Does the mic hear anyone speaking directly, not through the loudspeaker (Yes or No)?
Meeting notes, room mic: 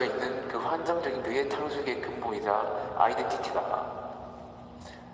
No